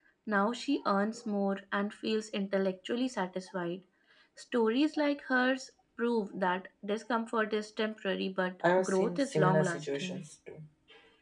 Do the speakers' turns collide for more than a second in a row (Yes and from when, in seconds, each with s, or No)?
Yes, from 8.6 s